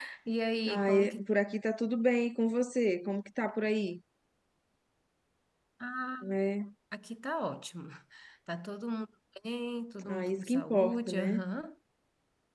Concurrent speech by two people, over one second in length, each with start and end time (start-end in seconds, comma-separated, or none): 10.1-11.4